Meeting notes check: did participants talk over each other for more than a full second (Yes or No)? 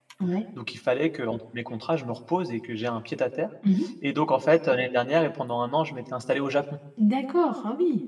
No